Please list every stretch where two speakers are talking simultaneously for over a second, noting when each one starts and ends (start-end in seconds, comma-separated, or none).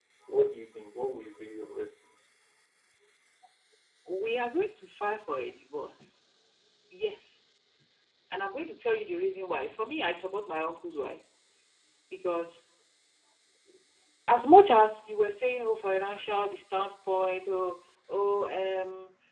none